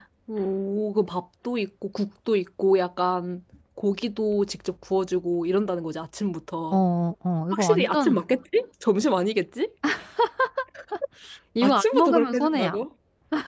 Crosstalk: present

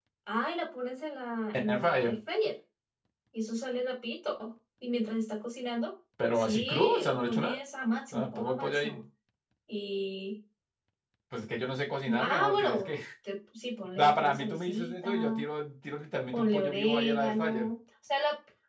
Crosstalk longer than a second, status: present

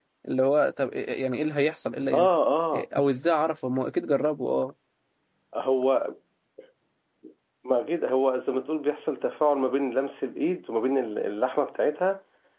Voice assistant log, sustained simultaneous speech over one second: none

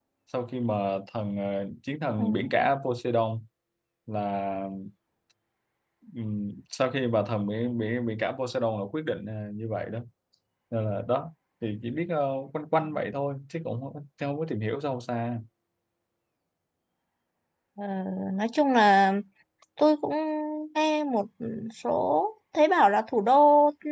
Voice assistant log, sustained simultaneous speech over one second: none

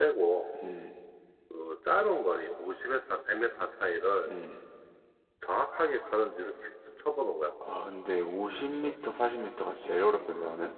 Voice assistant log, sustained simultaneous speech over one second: none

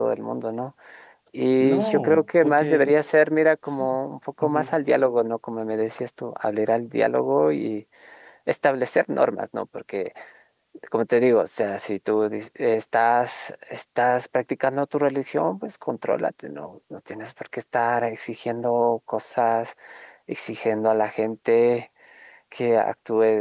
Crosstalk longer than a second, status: present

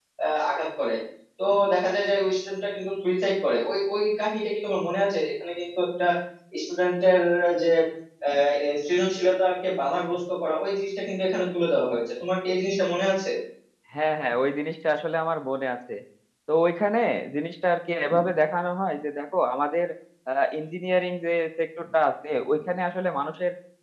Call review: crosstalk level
none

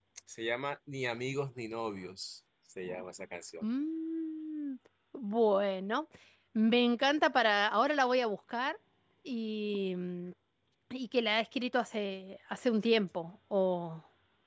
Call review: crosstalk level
none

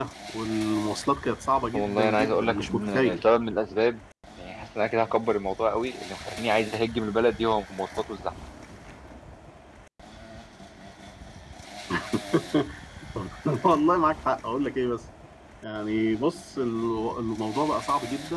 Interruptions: present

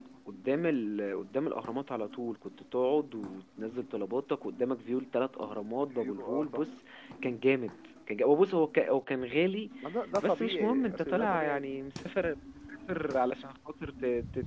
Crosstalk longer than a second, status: present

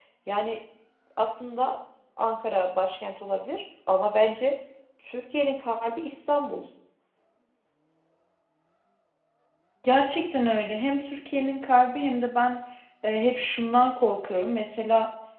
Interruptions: none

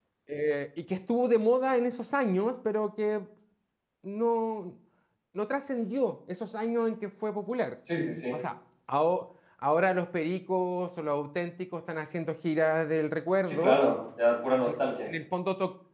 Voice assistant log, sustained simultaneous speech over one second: none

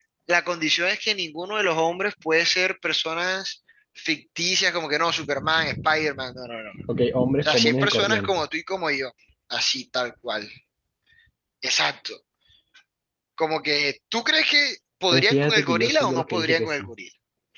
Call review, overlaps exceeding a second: present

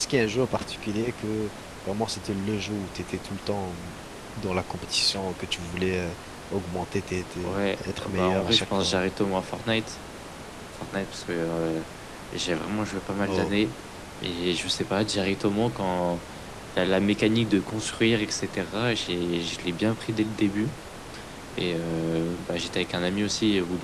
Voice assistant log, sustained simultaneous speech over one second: present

